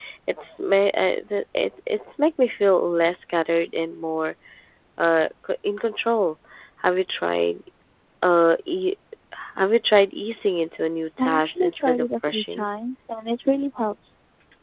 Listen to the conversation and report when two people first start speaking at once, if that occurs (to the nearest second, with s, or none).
11 s